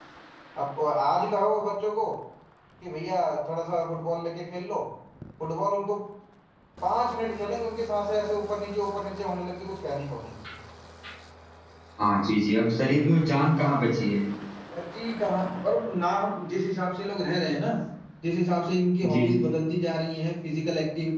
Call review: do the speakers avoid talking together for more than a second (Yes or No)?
Yes